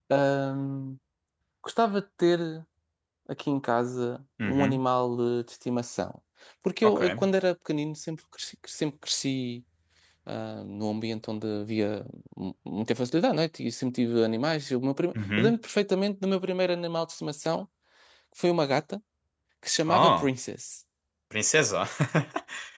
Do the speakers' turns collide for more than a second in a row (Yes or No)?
No